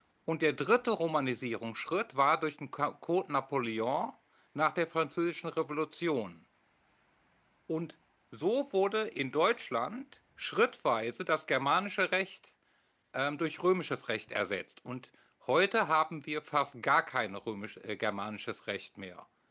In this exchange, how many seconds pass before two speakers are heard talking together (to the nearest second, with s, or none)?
none